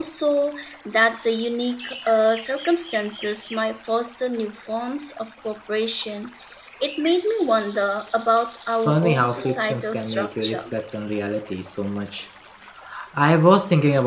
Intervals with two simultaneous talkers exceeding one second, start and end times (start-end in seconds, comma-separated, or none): 8.7-10.7